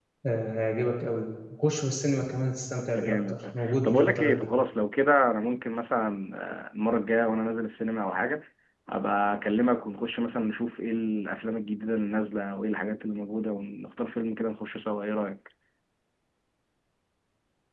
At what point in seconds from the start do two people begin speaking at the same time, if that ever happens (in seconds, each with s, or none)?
2.9 s